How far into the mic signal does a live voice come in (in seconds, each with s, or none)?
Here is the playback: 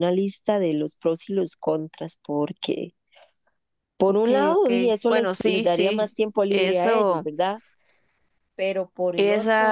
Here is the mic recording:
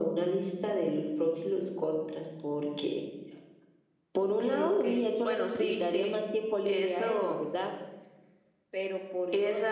none